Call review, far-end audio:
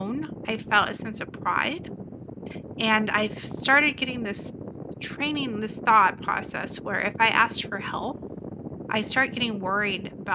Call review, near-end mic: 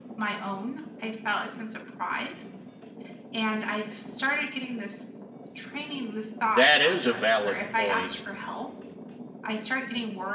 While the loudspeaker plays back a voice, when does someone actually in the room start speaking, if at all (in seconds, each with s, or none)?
6.4 s